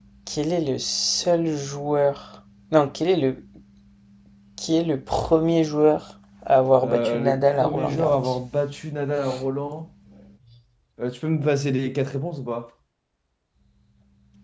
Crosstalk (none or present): present